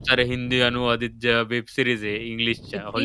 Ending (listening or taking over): taking over